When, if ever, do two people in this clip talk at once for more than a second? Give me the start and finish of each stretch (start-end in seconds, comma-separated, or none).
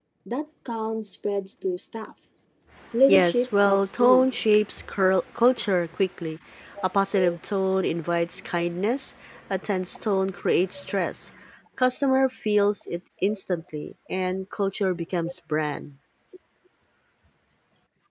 3.1-4.3